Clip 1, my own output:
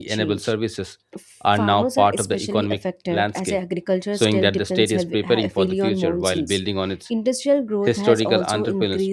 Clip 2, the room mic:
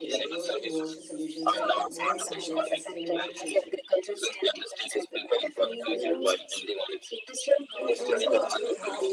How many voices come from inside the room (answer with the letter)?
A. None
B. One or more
B